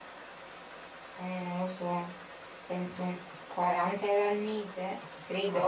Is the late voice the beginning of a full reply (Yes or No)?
Yes